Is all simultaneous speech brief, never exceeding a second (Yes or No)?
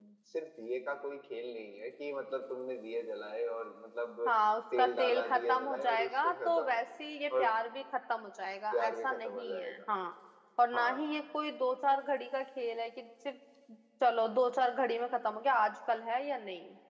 No